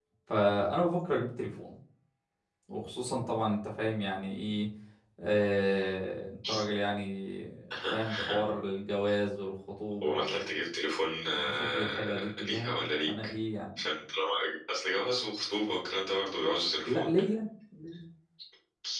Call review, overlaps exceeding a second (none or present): present